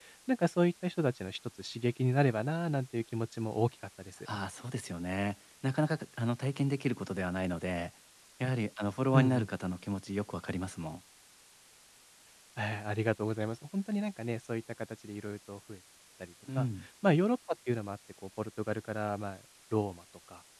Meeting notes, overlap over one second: none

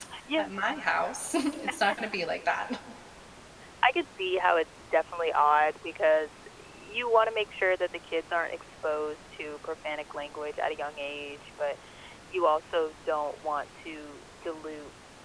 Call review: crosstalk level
none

